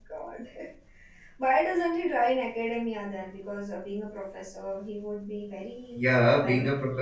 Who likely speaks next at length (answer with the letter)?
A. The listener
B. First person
A